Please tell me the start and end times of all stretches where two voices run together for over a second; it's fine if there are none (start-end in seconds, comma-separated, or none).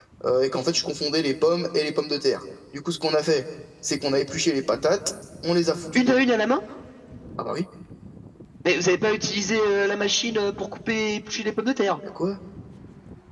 none